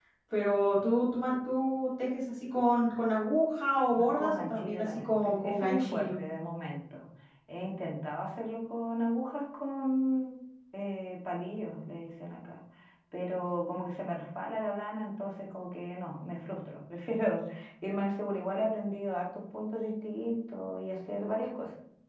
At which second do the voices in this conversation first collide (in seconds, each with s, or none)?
3.9 s